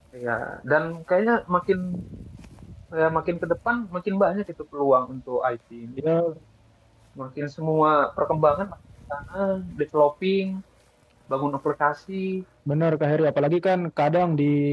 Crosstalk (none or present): none